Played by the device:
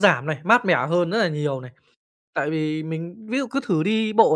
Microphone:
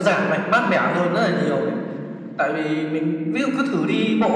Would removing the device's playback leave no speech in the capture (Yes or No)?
Yes